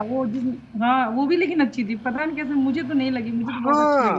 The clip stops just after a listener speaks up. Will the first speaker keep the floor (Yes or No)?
No